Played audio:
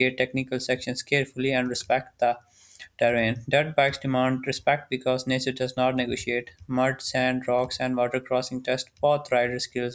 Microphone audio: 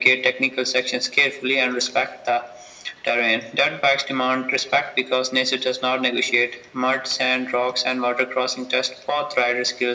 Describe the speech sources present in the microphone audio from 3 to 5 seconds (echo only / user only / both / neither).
echo only